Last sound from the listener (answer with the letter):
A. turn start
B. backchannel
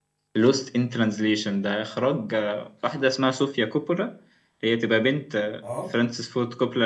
B